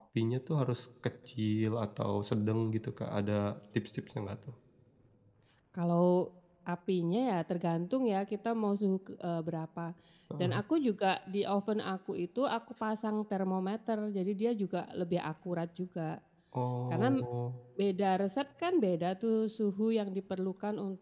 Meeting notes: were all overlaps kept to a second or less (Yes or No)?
Yes